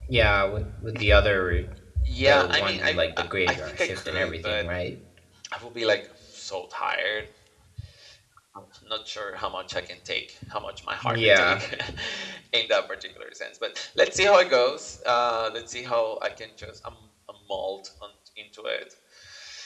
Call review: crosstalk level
present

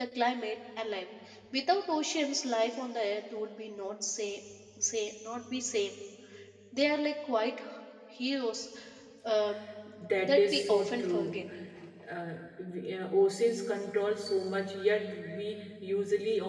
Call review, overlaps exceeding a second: present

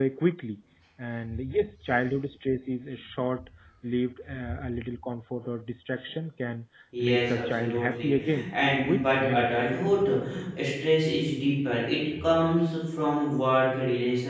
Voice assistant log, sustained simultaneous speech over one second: present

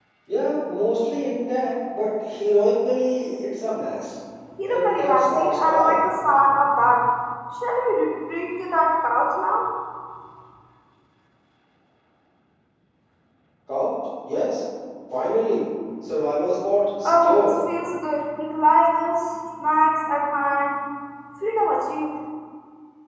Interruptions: present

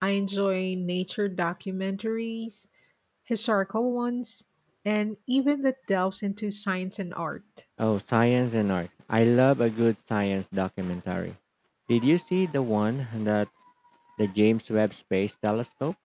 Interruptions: none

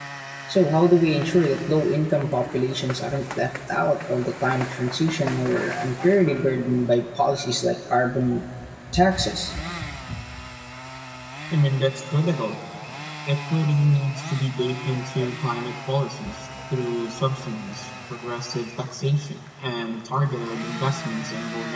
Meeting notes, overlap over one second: none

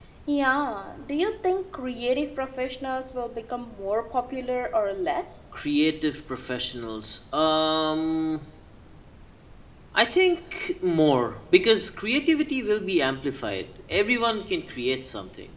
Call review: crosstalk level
none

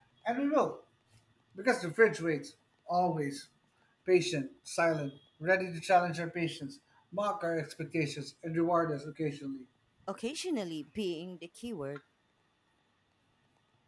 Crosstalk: none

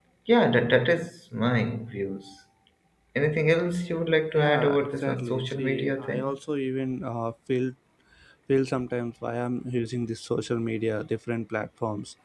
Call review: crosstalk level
present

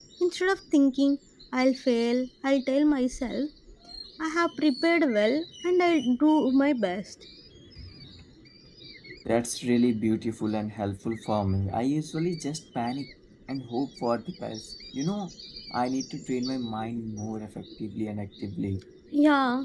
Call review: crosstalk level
none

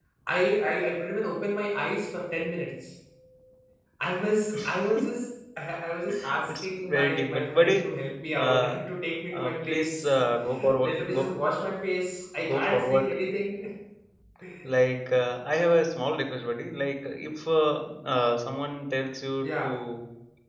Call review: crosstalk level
present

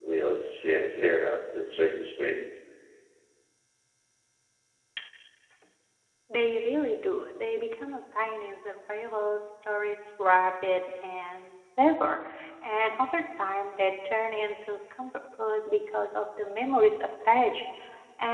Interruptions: none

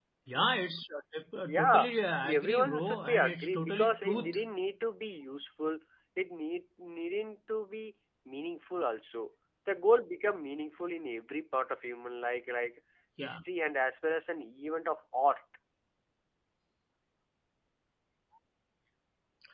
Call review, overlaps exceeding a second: present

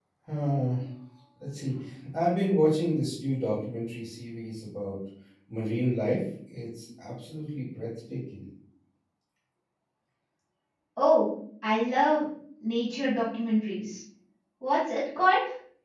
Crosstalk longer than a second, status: none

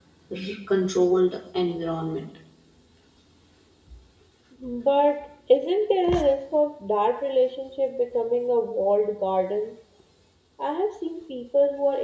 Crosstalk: none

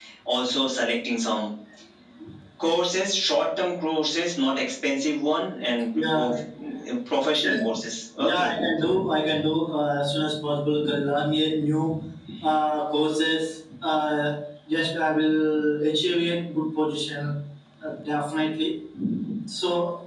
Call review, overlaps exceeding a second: none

